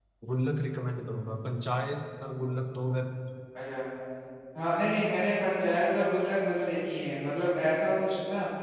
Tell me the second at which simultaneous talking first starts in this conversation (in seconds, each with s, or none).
none